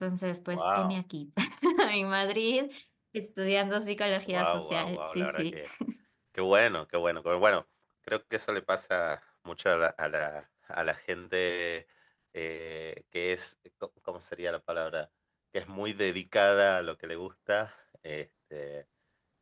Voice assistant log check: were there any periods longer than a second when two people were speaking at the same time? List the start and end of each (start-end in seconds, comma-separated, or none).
4.3-5.6